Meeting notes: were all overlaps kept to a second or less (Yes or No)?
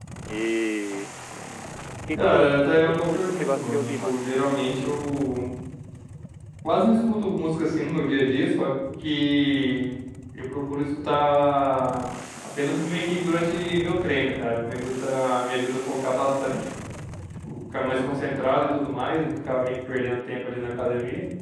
No